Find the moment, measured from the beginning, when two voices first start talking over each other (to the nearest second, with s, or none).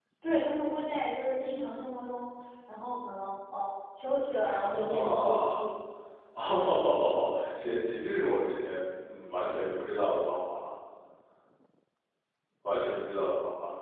4 s